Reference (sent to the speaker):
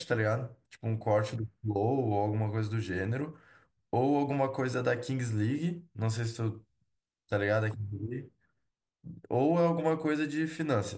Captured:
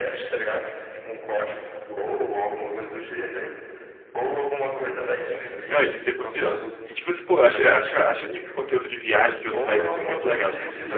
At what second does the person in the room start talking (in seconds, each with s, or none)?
5.6 s